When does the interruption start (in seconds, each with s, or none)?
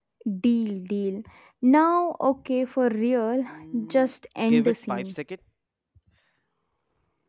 3.9 s